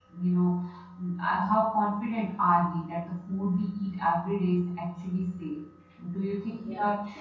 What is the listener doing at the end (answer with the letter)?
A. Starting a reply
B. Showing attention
B